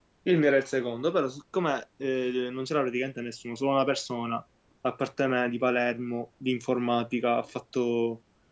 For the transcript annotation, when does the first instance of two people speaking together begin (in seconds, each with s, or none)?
none